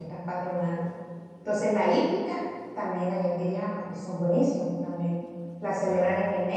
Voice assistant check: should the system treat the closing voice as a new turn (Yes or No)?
No